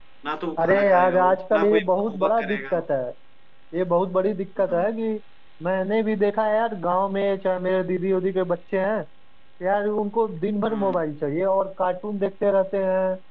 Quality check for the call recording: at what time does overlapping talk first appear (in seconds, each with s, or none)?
0.6 s